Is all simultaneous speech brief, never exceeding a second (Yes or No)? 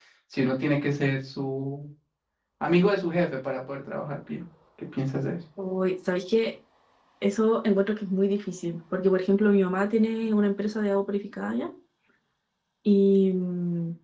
Yes